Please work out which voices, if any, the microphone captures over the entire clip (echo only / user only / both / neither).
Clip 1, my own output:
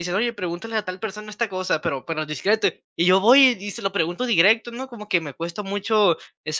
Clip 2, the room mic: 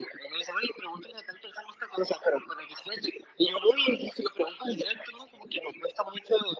echo only